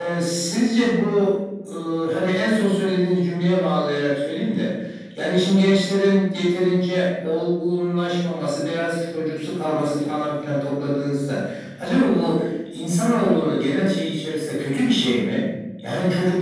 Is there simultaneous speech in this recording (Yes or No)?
No